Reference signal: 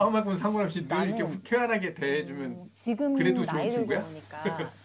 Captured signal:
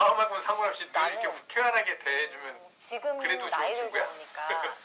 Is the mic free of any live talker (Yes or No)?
Yes